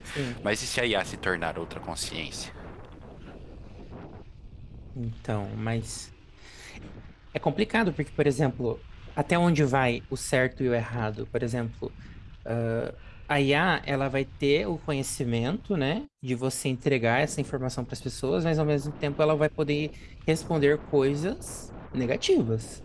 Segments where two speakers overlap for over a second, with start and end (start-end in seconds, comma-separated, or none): none